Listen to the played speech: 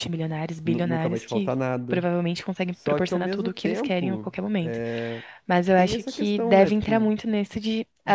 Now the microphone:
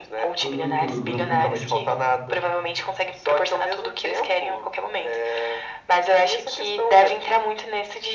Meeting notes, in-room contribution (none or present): present